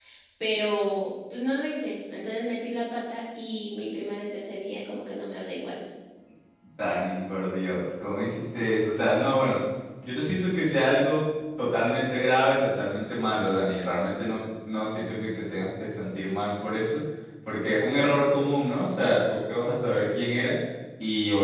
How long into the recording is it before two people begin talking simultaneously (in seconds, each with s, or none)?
none